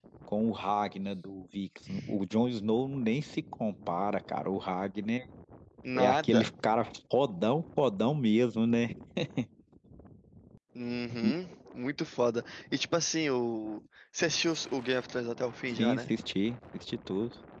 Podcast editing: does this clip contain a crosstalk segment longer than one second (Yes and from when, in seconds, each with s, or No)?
No